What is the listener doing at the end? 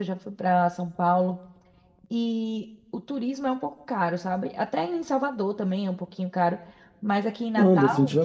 taking over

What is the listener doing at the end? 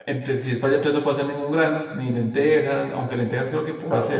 taking over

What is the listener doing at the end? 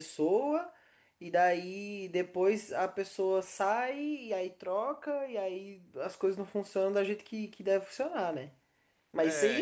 listening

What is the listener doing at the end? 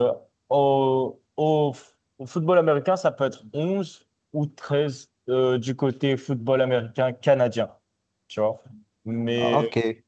listening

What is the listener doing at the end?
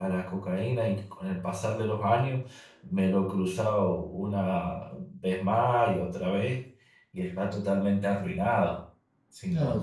taking over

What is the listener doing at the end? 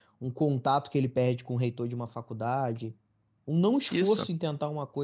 listening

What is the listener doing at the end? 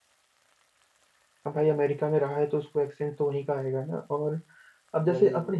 listening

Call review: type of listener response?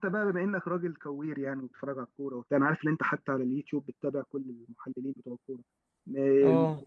listening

